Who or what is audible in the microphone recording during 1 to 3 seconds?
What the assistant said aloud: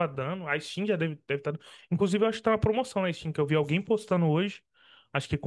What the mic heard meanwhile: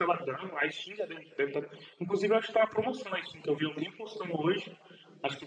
echo only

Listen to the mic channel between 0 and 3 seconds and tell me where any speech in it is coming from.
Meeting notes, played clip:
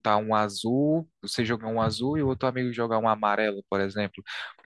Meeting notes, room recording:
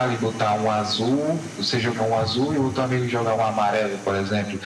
echo only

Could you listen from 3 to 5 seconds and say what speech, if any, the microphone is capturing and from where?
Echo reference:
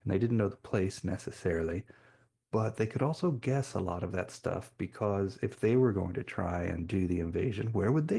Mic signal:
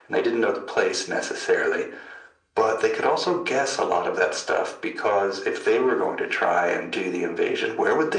echo only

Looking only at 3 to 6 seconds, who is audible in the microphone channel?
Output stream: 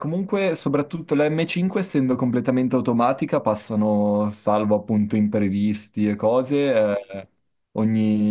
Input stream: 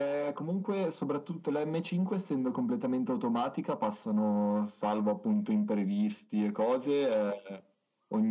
echo only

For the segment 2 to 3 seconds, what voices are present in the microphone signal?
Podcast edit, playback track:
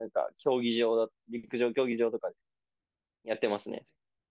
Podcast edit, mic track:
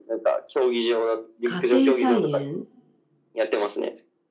both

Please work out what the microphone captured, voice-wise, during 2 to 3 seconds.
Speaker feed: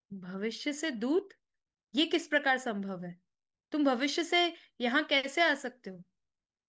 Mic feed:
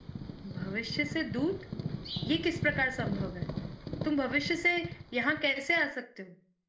echo only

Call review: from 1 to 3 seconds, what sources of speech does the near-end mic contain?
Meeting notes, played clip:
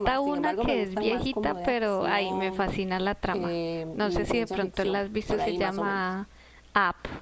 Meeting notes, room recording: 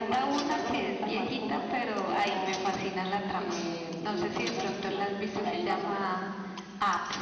echo only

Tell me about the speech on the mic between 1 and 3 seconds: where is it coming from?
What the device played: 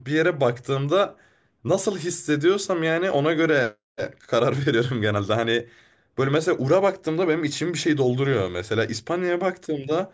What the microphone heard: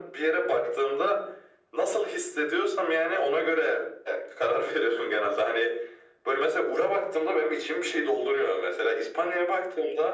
echo only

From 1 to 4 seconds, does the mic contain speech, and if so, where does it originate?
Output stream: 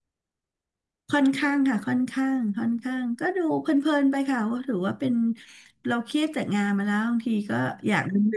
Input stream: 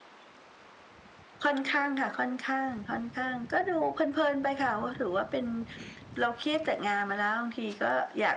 echo only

